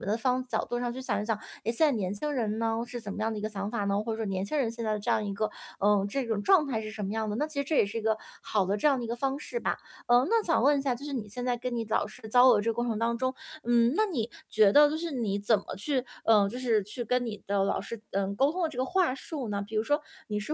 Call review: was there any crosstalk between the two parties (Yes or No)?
No